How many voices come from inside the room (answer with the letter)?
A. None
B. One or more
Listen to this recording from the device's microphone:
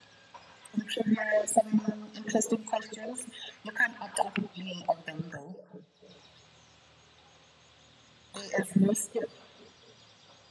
A